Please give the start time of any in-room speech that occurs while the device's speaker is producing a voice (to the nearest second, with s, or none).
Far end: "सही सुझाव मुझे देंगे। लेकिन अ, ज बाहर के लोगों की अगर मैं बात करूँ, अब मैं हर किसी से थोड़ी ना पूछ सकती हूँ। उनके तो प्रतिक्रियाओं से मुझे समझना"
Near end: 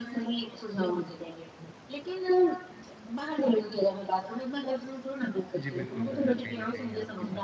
6 s